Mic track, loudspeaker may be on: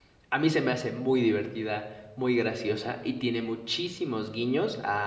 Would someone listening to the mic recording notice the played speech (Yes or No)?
No